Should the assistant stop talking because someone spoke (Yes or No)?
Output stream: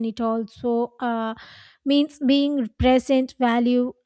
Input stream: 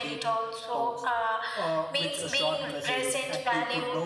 Yes